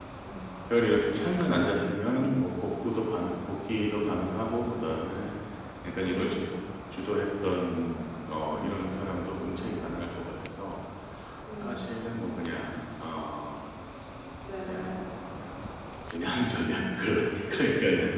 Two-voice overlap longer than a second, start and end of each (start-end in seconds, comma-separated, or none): none